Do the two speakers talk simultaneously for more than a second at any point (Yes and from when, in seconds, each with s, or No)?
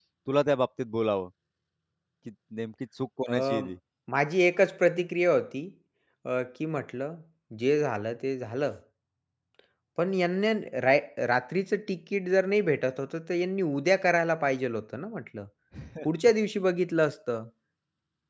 No